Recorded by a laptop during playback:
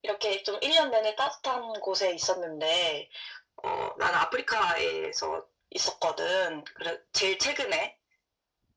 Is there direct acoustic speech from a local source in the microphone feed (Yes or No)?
No